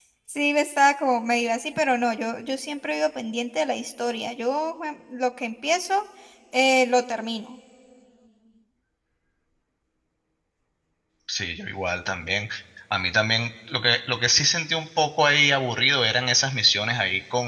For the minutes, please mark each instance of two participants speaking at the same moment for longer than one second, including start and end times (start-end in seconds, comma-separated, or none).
none